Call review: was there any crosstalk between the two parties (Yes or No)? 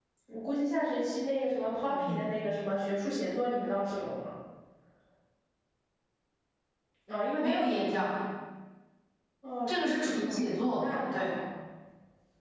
Yes